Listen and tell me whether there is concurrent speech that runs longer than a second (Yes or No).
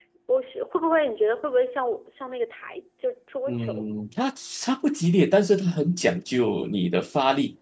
No